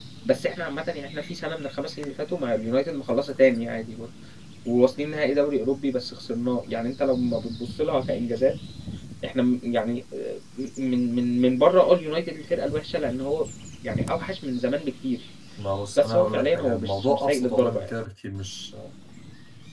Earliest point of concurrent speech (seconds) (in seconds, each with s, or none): 16.0 s